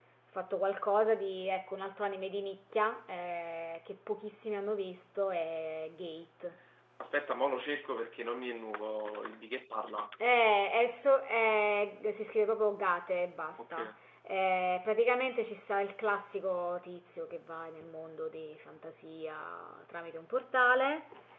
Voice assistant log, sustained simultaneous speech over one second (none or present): none